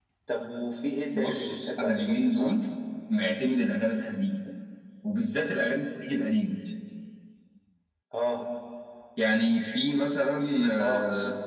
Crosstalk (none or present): present